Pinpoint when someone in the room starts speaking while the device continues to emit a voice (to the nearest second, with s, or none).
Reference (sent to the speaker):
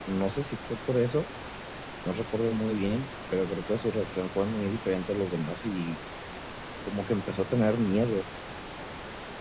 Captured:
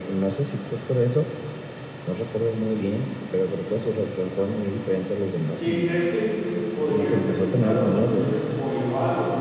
6 s